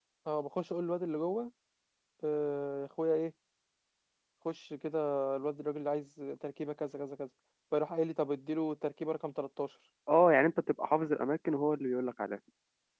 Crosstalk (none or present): none